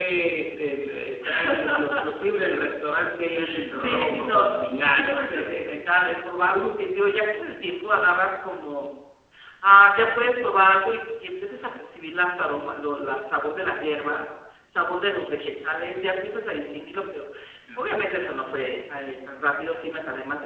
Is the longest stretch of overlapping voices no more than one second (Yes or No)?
No